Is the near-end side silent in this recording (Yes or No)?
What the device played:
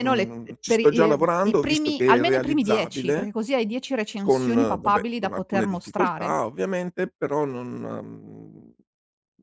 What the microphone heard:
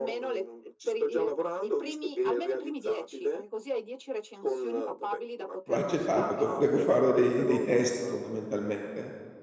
No